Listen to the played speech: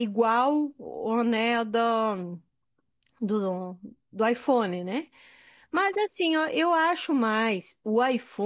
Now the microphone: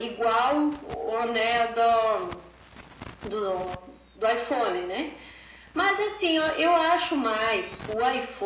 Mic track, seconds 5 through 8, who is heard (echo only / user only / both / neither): echo only